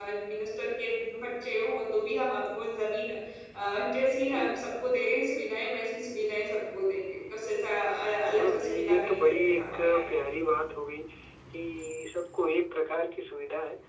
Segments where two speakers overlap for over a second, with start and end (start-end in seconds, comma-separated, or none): 8.4-10.4